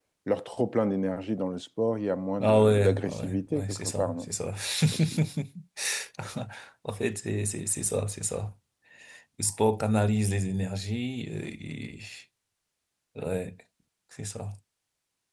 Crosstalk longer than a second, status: present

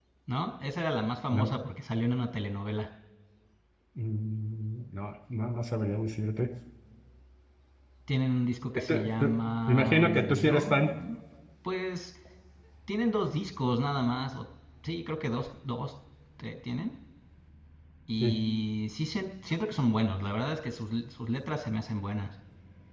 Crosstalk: present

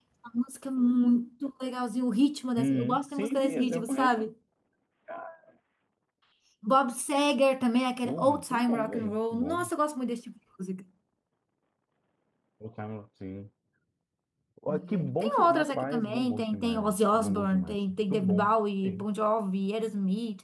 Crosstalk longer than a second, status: present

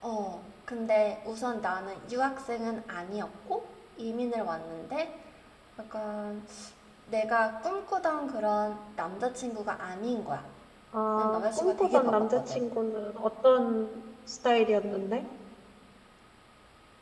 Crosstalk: present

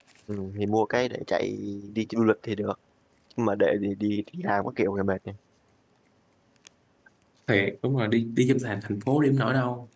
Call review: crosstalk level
none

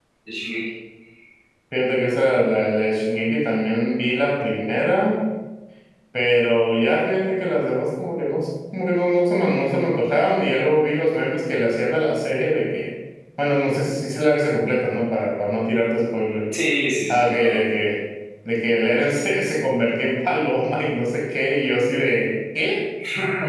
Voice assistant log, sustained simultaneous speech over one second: none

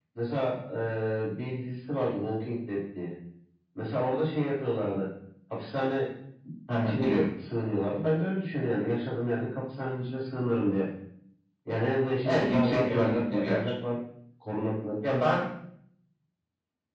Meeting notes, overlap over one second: present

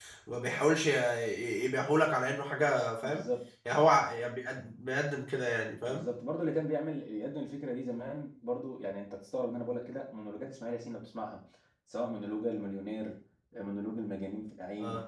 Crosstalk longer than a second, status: none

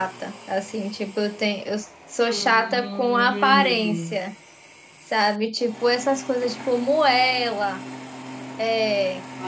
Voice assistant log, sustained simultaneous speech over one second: present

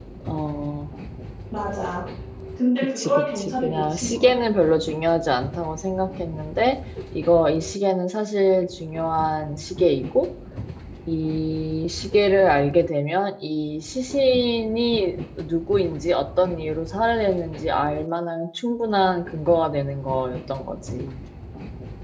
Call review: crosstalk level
present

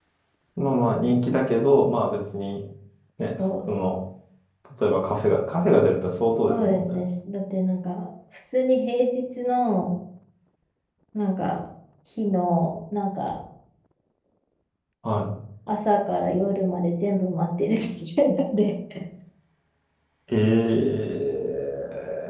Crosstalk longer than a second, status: none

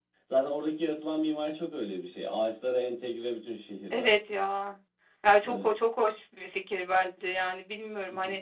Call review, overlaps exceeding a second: none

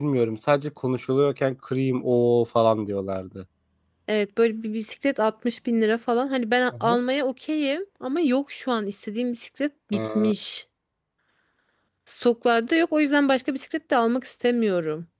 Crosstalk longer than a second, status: none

